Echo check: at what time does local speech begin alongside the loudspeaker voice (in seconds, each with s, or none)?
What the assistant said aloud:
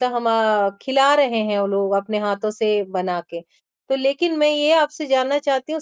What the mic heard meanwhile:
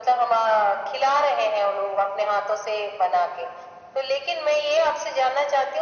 none